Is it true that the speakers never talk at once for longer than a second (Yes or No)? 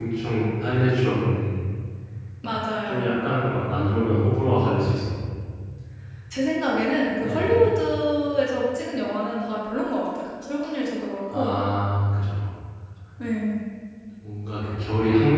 Yes